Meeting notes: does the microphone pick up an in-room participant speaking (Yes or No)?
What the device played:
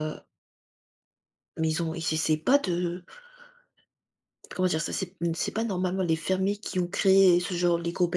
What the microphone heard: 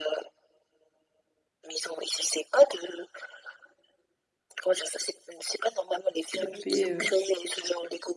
Yes